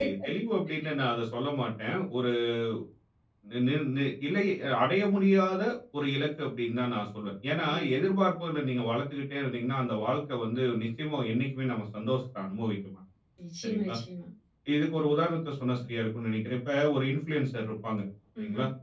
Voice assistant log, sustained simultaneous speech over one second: none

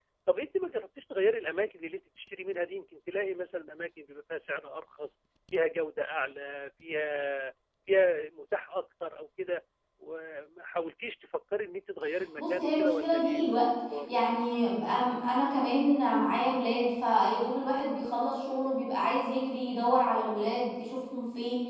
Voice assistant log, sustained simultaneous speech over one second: present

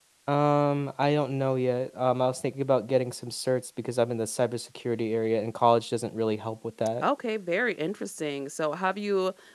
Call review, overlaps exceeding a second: none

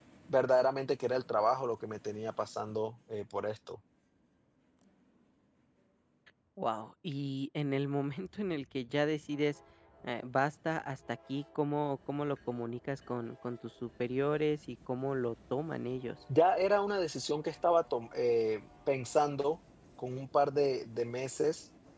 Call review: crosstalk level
none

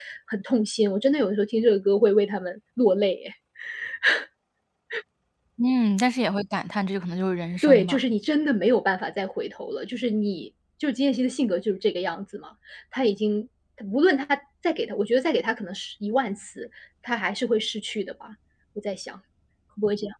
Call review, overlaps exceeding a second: none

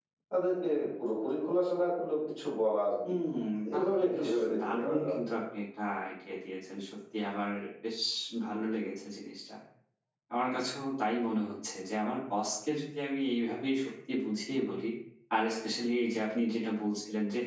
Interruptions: present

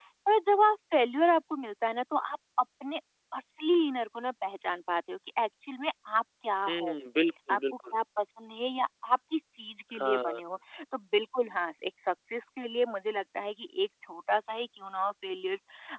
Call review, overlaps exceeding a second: none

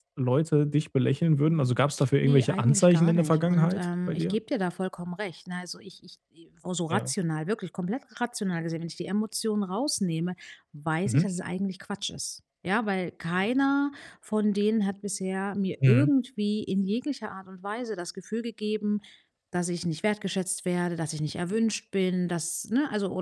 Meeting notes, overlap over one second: present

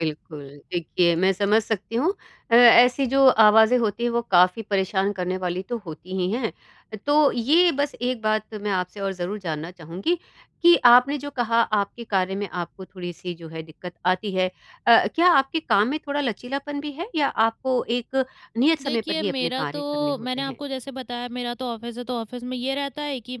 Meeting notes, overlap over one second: present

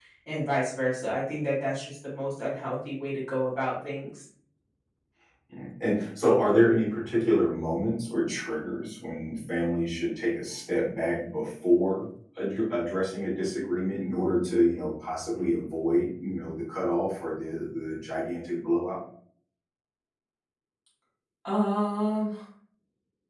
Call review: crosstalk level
none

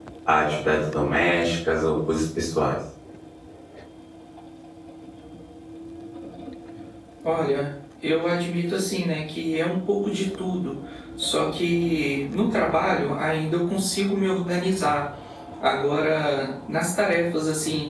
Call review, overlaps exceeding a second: none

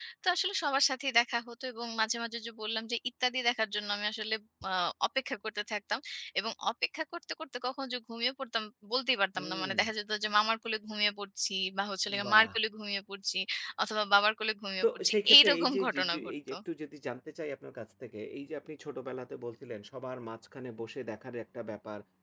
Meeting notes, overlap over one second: present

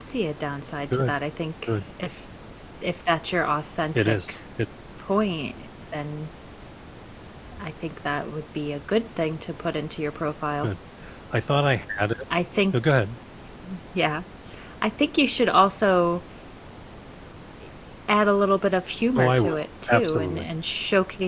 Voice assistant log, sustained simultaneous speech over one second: present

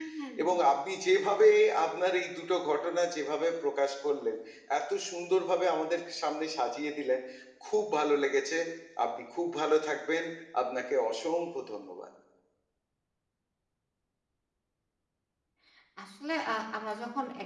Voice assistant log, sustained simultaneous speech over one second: none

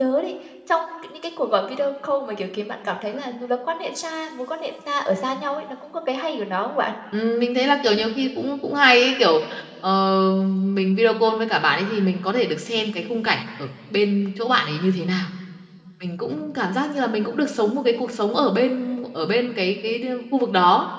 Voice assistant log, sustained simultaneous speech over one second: none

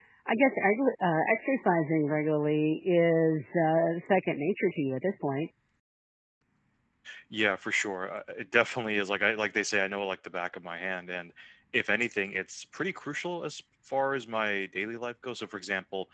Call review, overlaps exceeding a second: none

